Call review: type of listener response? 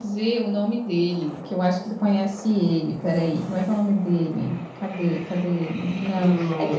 listening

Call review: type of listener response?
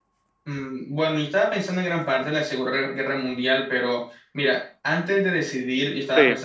listening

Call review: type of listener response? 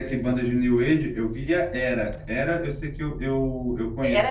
taking over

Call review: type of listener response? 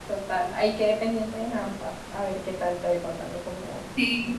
taking over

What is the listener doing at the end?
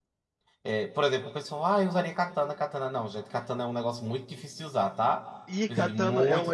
taking over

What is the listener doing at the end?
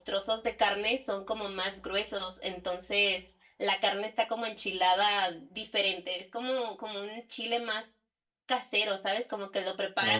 listening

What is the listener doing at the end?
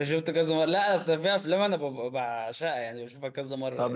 taking over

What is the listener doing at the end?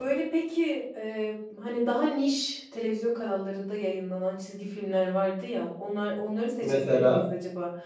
listening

